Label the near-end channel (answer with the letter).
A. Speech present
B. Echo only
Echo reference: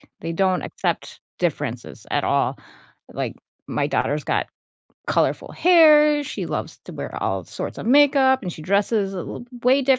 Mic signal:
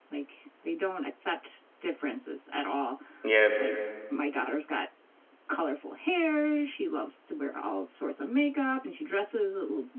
A